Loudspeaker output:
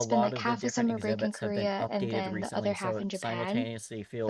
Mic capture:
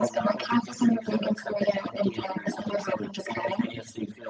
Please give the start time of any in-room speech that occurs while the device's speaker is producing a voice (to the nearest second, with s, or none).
none